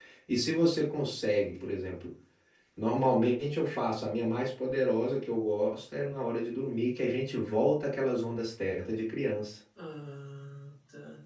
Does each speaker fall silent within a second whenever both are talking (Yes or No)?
Yes